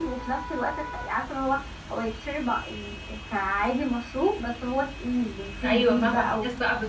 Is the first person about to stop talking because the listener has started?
Yes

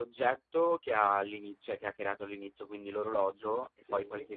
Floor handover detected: No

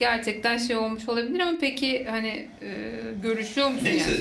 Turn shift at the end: Yes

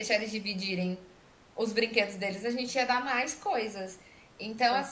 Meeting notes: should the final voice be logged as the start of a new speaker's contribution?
No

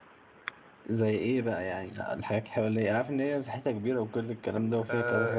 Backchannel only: No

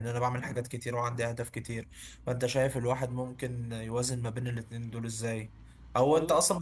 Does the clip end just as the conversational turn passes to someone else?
No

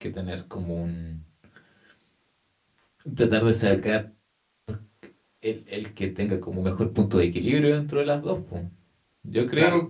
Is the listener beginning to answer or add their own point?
Yes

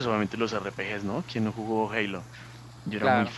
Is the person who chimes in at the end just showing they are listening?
No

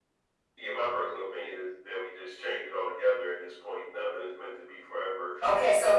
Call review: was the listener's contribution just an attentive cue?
No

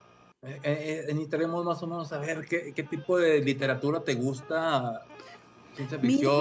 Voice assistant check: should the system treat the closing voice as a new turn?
No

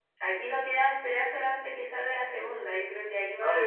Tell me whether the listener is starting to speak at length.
No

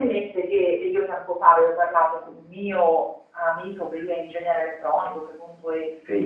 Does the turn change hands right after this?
No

